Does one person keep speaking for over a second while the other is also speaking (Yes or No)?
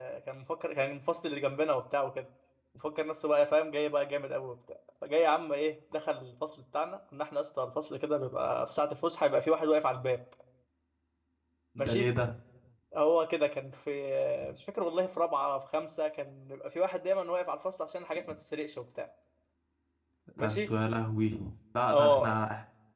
No